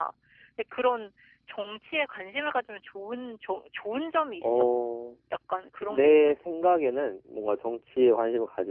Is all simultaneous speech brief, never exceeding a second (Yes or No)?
Yes